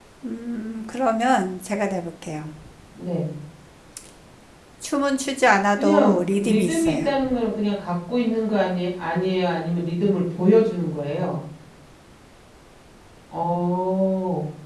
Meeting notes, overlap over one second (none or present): present